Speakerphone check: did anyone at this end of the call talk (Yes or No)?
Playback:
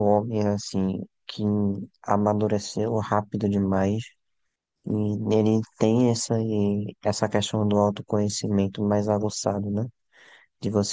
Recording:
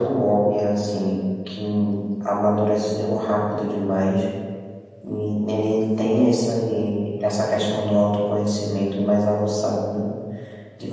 No